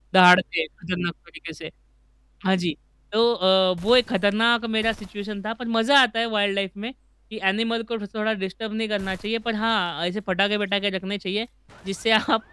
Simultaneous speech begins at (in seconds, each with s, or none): none